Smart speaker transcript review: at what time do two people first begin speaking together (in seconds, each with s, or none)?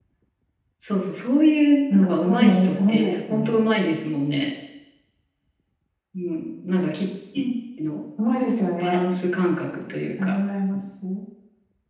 1.9 s